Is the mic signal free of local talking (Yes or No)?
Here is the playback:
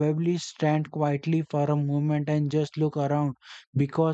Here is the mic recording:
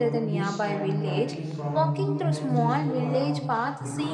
No